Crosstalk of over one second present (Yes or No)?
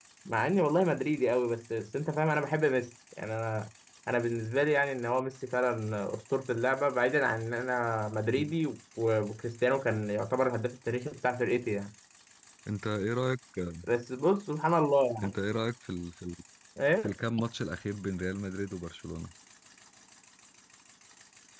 No